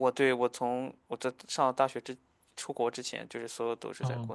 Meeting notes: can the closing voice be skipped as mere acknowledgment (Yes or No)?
No